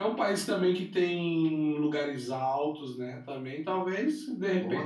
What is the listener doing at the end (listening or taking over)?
listening